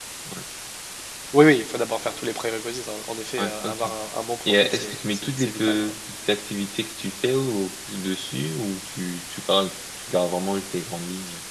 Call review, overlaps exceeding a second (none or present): present